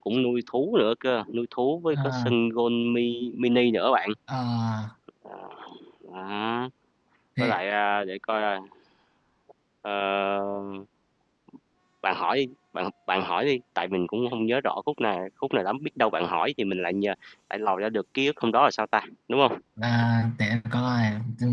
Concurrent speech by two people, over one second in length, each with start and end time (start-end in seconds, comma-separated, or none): none